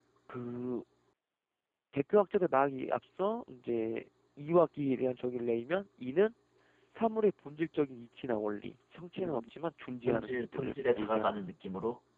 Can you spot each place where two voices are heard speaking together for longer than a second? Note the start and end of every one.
10.1-11.3

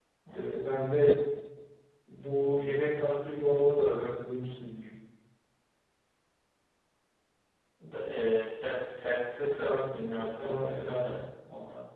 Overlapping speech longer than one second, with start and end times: 9.3-11.0

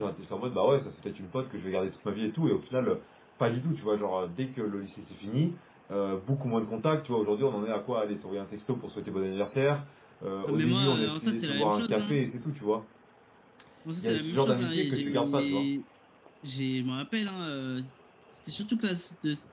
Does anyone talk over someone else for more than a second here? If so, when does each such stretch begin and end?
10.5-12.1, 14.0-15.7

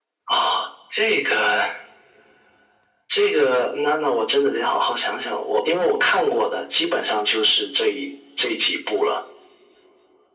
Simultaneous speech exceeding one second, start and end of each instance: none

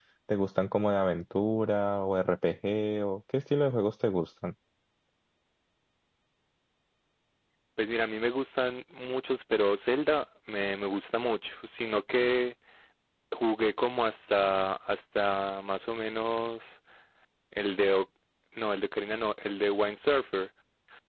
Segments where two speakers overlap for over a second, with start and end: none

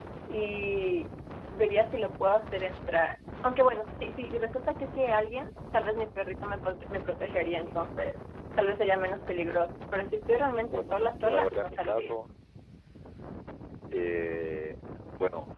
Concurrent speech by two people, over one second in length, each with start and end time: 10.7-12.1

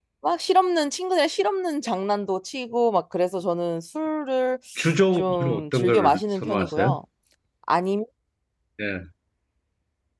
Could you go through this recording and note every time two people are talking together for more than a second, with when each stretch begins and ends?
5.1-6.9

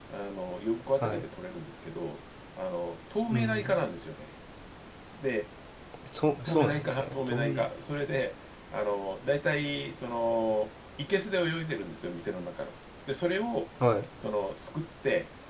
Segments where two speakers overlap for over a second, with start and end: 6.4-7.6

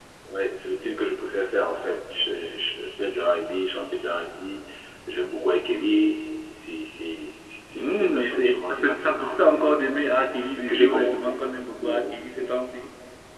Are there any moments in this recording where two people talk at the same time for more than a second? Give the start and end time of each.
7.7-9.8

